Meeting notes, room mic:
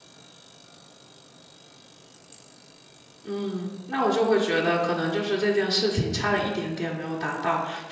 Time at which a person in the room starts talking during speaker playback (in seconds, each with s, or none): 3.2 s